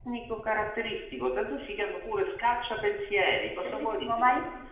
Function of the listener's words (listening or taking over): taking over